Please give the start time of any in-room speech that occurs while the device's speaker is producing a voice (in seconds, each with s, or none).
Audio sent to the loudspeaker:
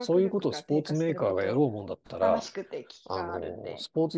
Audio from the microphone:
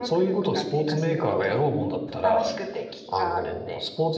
none